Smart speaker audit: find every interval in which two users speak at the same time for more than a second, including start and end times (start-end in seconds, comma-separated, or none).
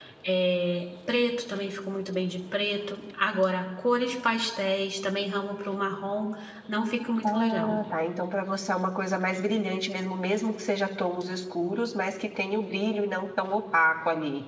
none